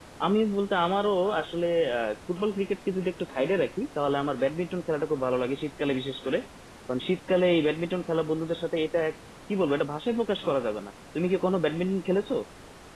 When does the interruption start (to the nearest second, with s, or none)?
none